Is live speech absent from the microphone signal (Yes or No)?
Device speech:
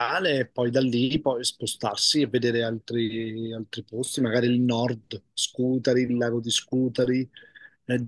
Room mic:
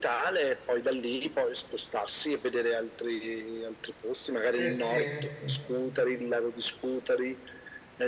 No